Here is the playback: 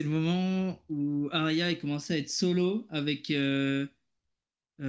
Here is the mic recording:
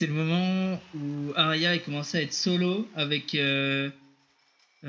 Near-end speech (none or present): none